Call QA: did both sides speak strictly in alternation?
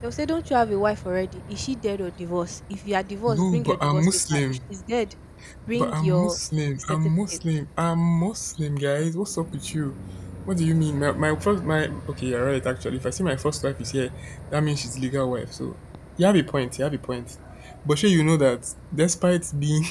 No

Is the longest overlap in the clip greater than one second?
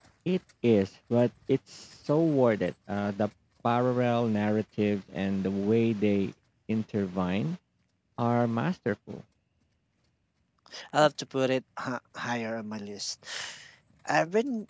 No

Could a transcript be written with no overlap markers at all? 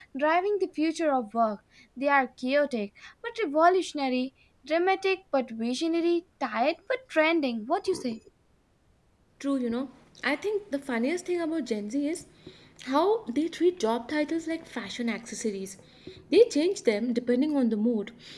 Yes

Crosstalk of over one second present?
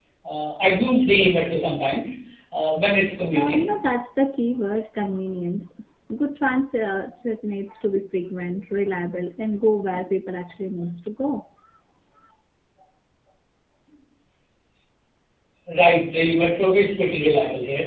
No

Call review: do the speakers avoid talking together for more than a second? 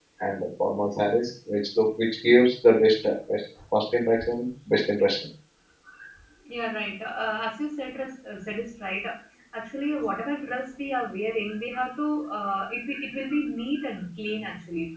Yes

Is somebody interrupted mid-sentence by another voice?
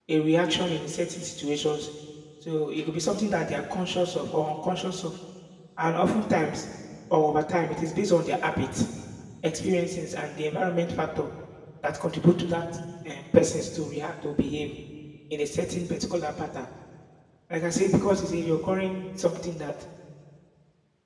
No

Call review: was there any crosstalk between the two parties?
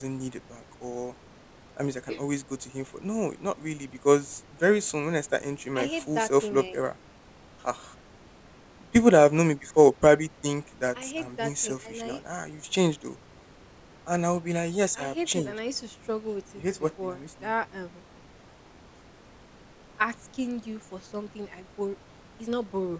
Yes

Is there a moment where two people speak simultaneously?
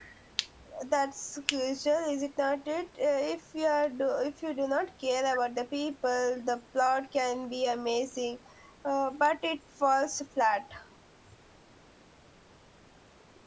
No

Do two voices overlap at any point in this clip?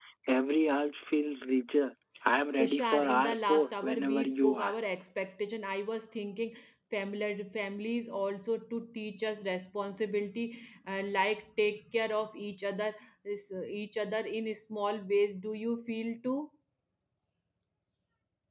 Yes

